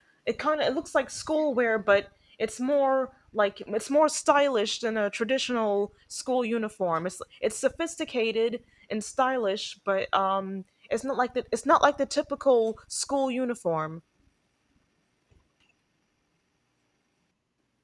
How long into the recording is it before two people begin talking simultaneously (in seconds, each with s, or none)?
none